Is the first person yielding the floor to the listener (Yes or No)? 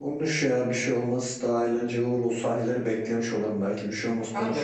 Yes